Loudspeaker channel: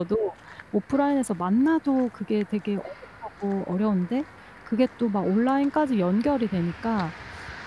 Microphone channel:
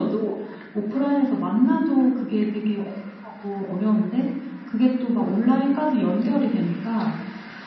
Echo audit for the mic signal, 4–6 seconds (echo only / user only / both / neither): echo only